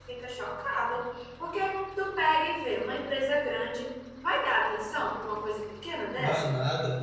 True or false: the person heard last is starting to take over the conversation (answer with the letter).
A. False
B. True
B